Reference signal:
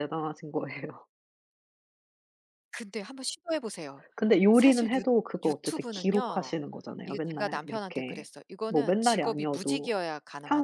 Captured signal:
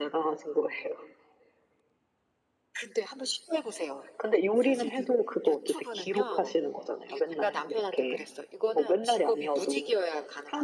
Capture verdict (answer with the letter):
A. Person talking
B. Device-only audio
B